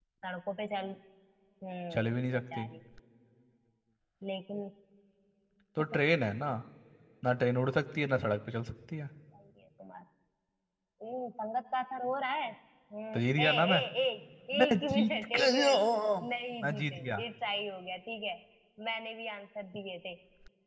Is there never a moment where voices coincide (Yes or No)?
No